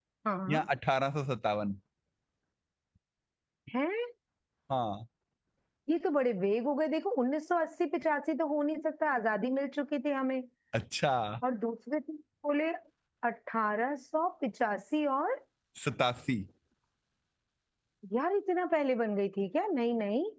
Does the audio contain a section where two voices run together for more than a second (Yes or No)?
No